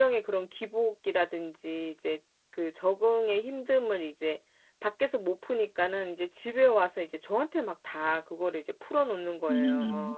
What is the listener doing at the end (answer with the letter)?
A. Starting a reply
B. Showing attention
A